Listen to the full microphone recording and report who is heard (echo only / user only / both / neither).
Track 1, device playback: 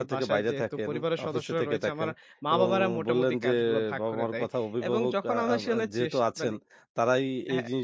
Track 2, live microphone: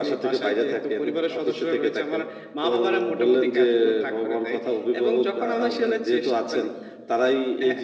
echo only